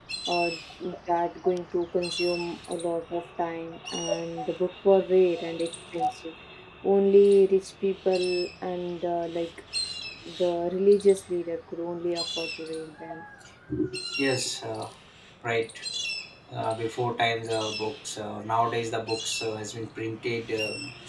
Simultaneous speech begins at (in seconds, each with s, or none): none